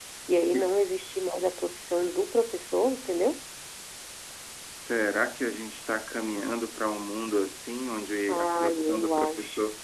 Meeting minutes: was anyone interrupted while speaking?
Yes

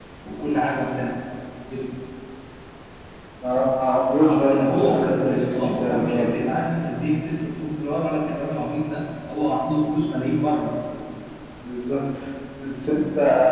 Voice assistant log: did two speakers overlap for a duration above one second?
Yes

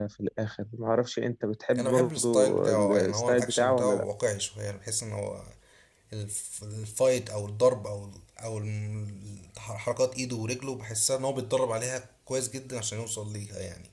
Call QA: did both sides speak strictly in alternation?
No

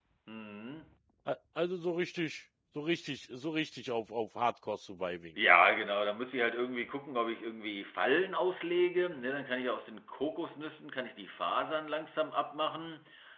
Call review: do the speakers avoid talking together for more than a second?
Yes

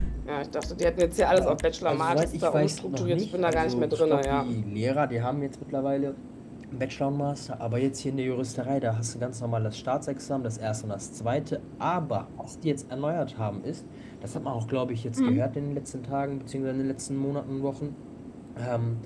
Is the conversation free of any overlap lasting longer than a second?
No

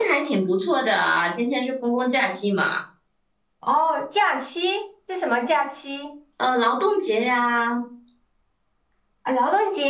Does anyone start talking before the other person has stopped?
No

